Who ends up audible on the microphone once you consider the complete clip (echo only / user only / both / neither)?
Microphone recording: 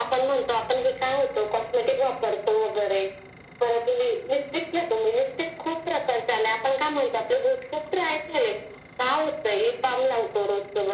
echo only